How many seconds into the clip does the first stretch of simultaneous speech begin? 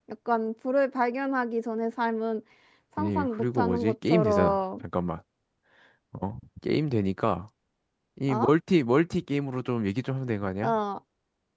3.0 s

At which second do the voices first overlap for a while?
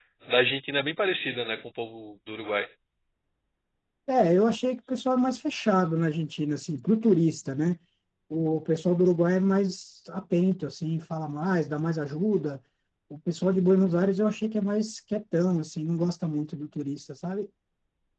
none

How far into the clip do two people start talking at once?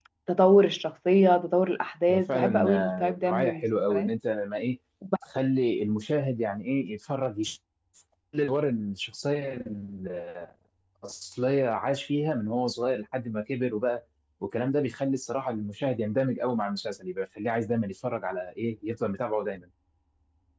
2.1 s

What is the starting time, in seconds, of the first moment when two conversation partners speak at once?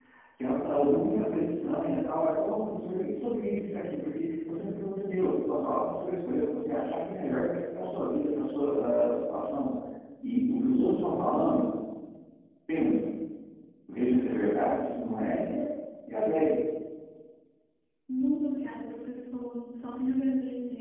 none

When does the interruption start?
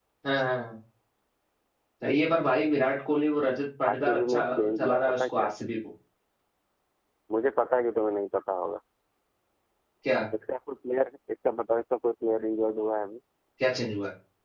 3.8 s

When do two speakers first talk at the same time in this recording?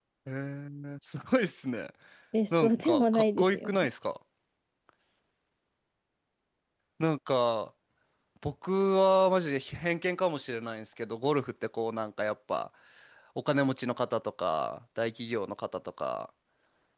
2.6 s

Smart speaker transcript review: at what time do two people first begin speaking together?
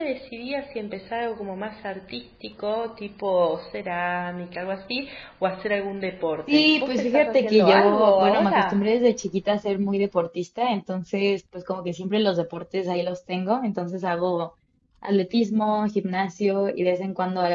6.5 s

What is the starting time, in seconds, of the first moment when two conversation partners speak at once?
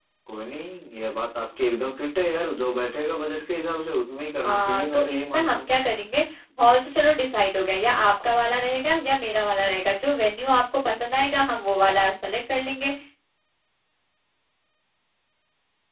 4.4 s

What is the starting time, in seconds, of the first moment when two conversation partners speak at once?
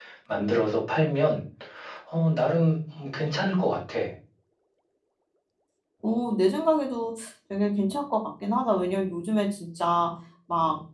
none

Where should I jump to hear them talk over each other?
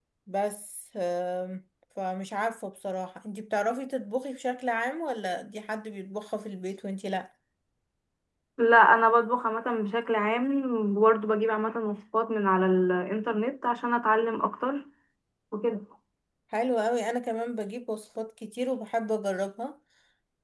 none

